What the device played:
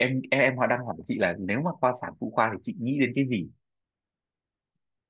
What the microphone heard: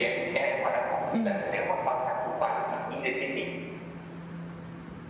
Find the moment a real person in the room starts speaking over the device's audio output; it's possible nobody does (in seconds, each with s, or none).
1.1 s